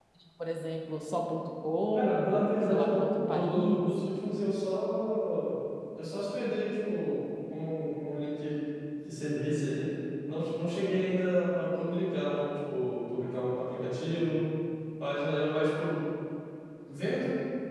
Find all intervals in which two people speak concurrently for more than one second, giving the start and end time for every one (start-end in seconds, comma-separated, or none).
1.9-3.9